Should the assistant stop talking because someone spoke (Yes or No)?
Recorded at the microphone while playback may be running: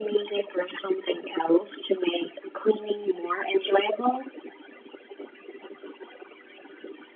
No